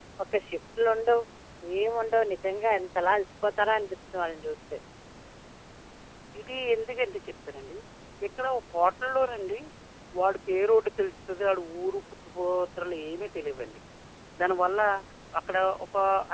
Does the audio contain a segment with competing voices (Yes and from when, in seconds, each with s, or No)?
No